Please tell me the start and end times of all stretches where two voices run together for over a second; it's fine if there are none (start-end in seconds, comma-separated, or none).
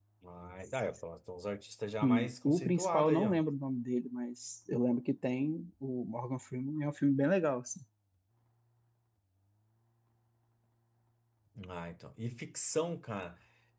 2.0-3.4